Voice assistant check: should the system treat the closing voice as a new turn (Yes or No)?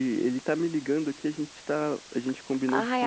No